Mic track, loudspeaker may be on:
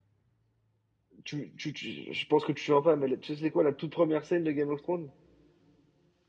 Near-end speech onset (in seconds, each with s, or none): 1.2 s